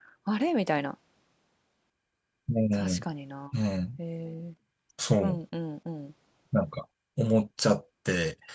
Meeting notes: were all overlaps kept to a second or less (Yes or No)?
Yes